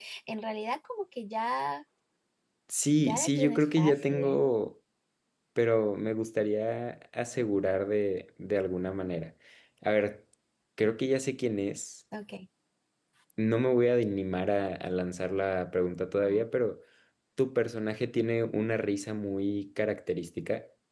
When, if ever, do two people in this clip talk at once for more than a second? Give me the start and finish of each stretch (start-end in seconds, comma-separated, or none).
3.0-4.4